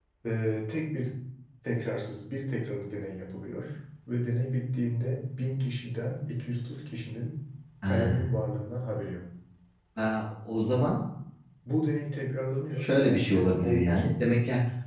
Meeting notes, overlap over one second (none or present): present